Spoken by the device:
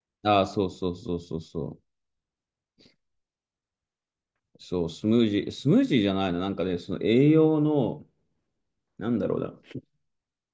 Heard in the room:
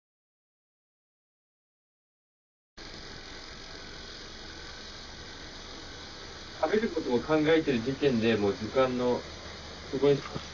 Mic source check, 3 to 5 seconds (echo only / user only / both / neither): neither